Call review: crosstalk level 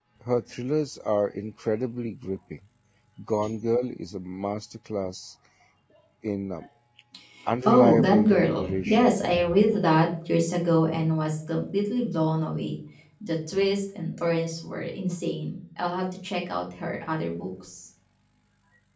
present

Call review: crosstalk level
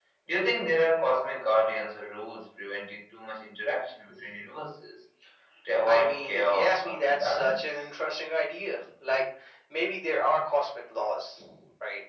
present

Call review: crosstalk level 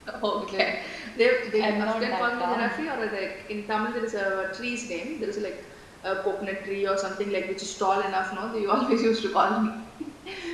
present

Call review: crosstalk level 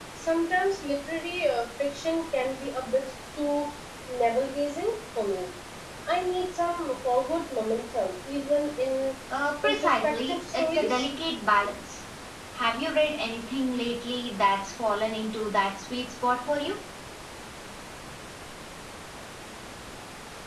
present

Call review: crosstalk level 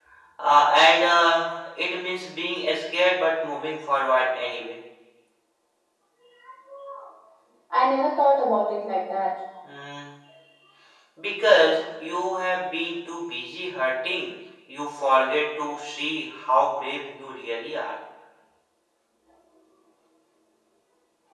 none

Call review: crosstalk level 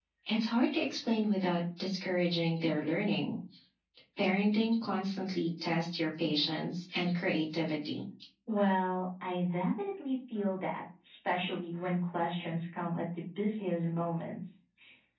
none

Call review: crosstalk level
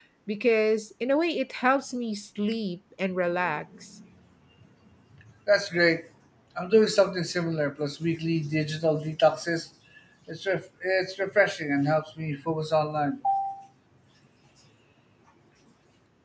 none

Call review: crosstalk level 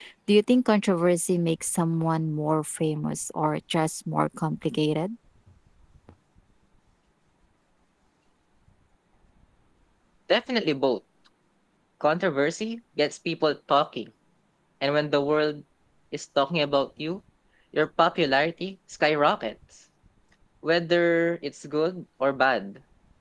none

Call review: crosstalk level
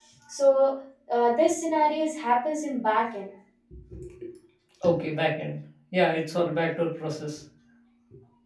none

